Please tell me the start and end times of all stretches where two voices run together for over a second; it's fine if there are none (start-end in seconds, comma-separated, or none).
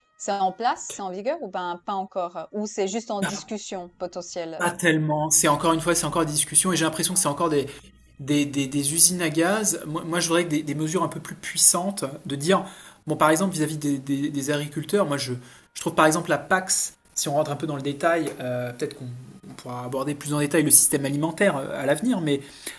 none